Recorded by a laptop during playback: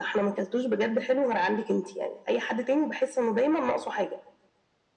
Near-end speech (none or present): none